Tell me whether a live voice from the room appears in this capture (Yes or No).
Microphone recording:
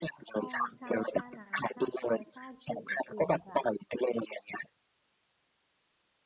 Yes